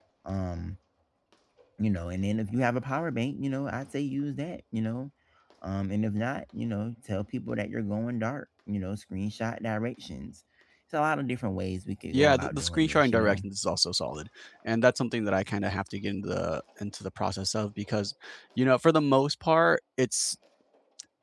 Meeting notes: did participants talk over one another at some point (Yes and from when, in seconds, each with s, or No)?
Yes, from 12.1 s